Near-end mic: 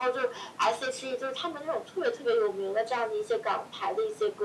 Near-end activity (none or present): none